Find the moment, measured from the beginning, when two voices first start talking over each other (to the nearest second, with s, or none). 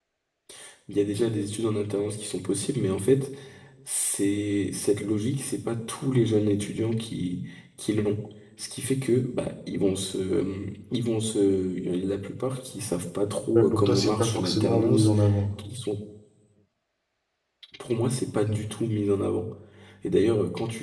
14 s